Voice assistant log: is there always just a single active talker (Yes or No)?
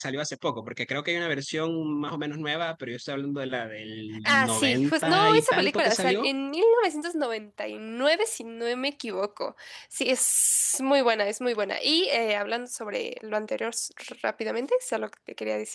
No